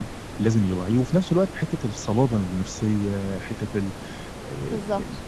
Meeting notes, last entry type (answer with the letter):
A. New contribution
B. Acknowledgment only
A